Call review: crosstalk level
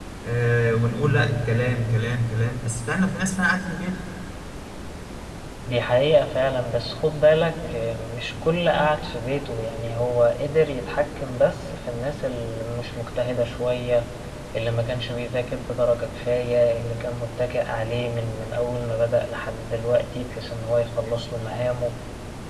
none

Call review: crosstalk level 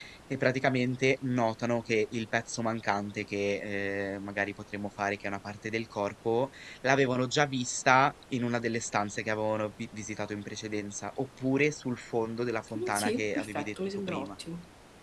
present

